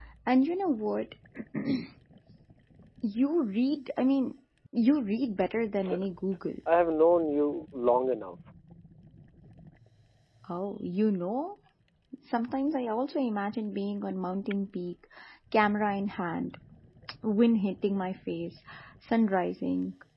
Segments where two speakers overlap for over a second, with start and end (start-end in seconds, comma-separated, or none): none